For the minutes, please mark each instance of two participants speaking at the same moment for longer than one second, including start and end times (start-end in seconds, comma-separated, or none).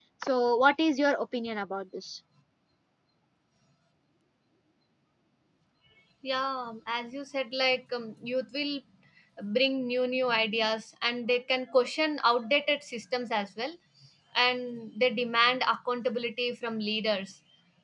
none